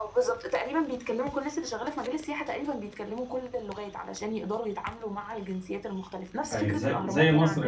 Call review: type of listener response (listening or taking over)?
taking over